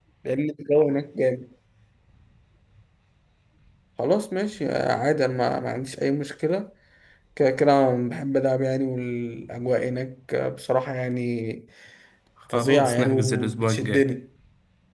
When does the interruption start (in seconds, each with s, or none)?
12.5 s